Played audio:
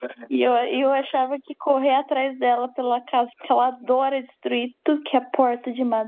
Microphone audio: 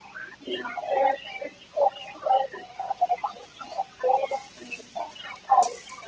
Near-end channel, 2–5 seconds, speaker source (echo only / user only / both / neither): echo only